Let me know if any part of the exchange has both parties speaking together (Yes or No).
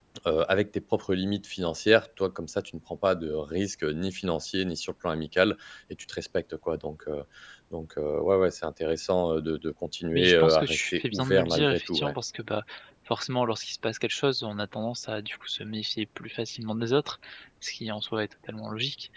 Yes